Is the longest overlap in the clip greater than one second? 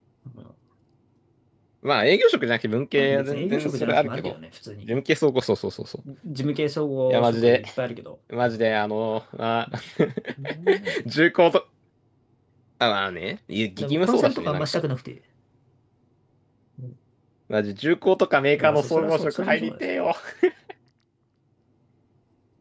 Yes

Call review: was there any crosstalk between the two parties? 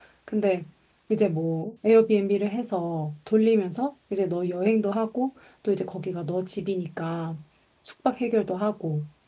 No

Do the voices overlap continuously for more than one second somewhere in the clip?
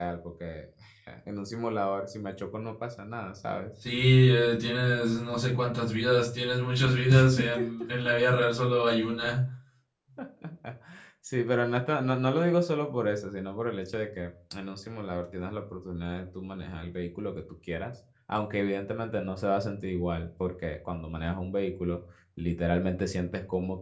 No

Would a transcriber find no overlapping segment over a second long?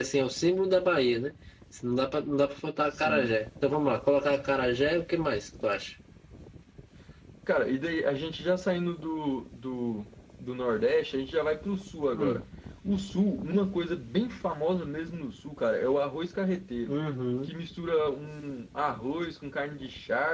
Yes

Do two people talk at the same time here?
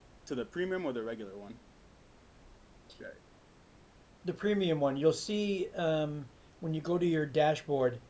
No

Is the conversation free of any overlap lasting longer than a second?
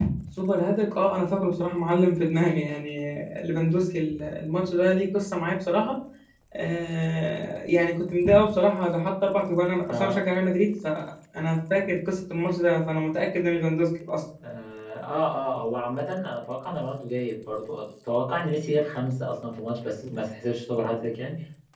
Yes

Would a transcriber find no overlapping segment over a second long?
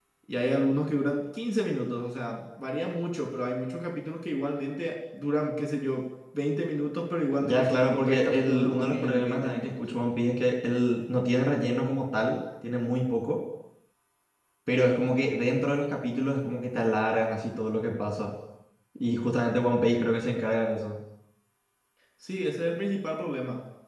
No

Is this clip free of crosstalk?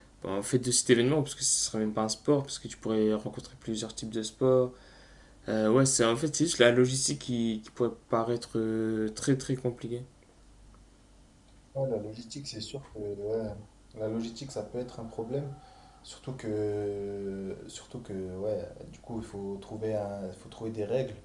Yes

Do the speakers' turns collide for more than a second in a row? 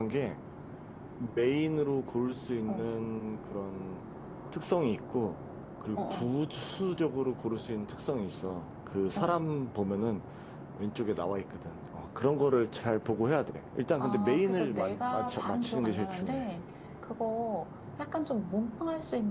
Yes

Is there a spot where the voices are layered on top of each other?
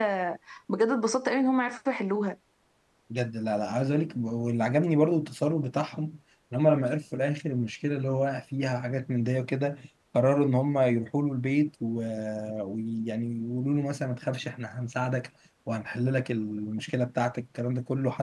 No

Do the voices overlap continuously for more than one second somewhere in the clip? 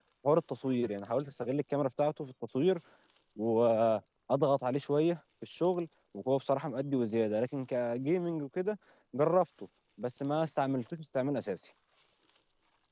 No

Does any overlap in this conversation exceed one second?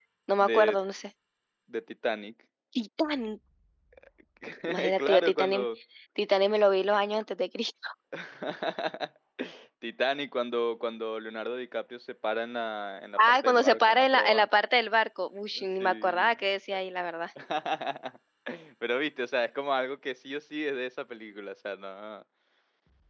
Yes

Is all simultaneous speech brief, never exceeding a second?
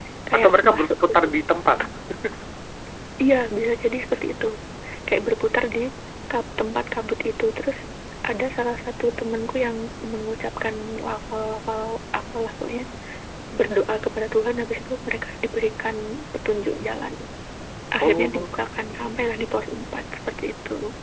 No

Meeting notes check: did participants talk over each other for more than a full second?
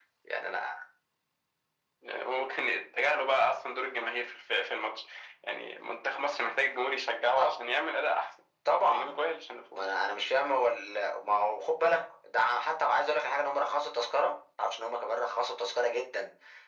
No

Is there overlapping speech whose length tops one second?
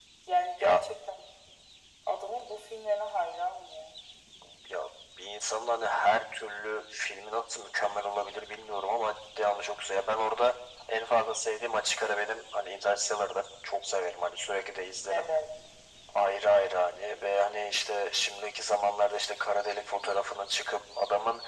No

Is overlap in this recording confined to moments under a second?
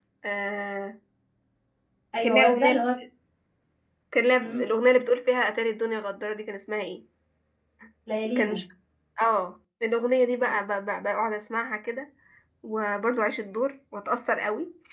Yes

